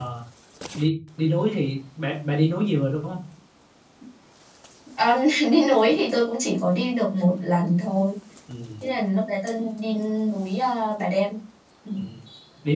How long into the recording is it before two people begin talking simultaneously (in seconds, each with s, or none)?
none